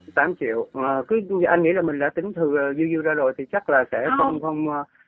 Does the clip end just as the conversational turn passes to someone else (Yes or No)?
No